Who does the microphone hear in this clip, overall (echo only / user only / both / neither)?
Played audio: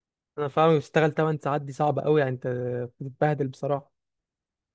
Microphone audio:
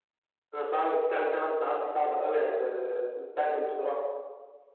echo only